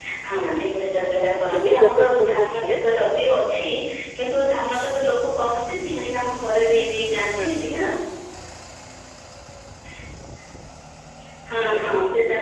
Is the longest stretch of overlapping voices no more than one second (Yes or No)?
No